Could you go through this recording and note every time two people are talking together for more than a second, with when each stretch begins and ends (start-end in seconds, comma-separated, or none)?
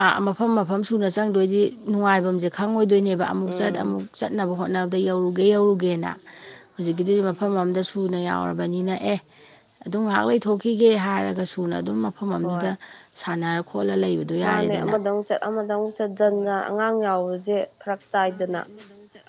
none